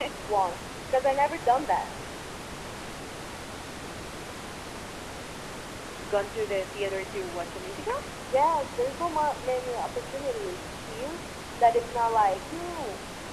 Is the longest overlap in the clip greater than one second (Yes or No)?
No